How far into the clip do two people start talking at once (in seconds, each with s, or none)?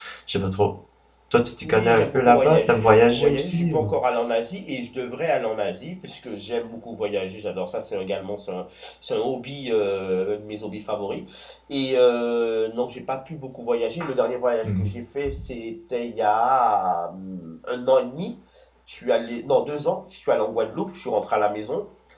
1.6 s